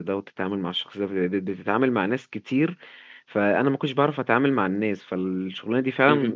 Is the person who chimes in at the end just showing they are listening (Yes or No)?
Yes